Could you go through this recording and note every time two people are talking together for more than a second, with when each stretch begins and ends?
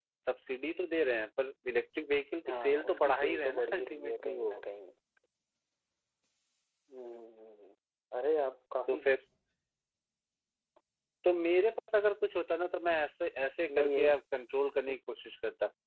2.5-4.5

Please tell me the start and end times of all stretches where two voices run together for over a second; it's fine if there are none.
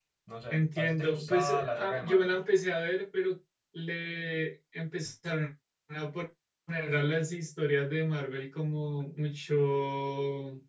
0.5-2.4

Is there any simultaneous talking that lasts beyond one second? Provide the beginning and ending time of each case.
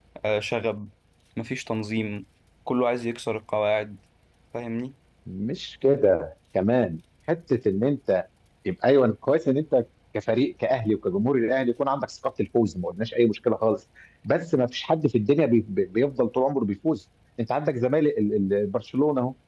none

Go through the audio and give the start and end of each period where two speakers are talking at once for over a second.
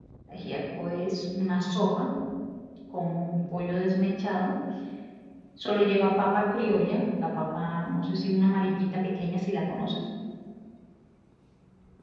none

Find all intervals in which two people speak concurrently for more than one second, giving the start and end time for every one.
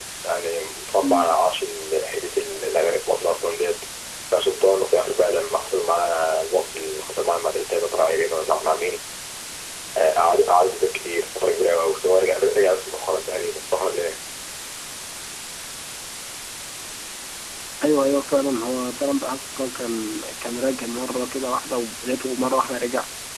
none

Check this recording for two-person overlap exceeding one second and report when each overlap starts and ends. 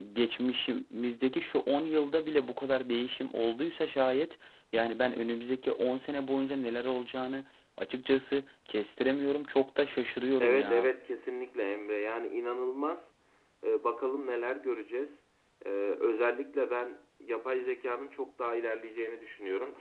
none

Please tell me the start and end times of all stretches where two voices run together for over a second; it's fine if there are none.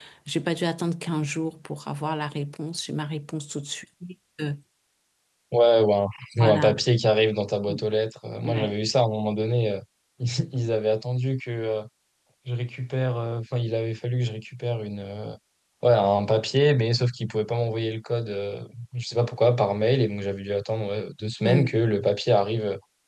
none

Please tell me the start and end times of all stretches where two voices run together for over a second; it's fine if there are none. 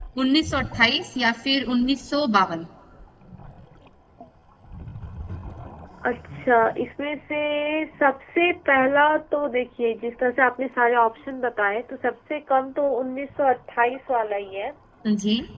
none

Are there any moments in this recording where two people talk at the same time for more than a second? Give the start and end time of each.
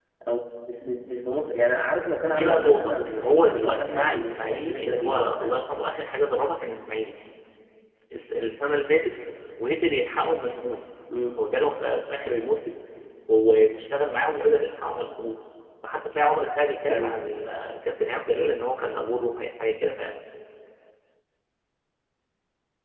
2.2-5.6

